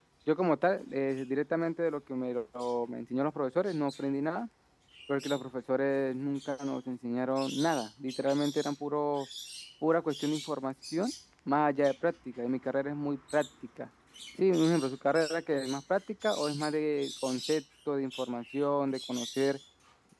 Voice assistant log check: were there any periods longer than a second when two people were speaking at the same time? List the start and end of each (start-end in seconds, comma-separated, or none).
none